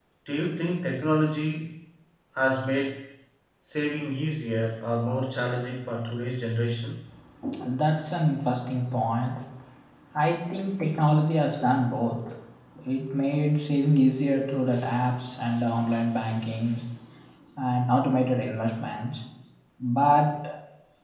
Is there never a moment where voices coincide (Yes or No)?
Yes